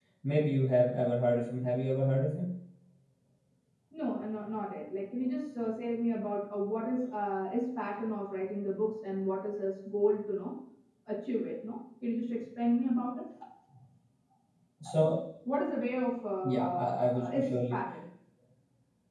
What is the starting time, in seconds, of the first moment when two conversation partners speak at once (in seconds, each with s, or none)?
16.4 s